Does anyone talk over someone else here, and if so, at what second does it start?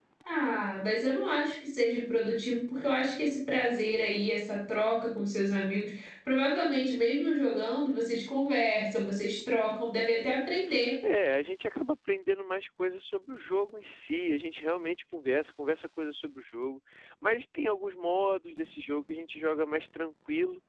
none

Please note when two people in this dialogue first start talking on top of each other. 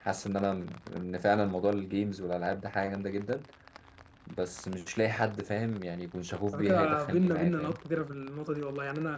6.5 s

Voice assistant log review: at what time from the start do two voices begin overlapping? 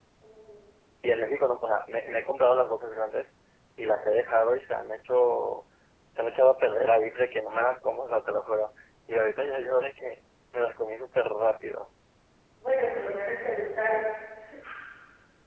none

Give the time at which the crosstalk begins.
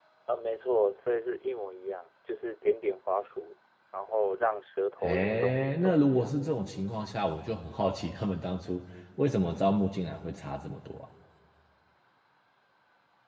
5.0 s

